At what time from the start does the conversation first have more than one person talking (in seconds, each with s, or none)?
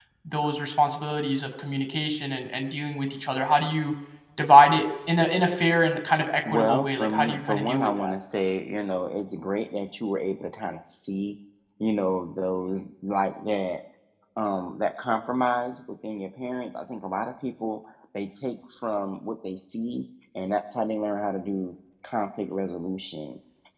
6.4 s